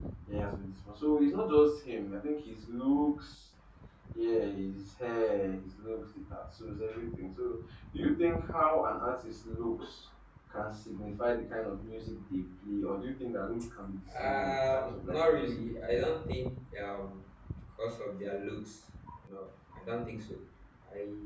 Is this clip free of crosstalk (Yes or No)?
No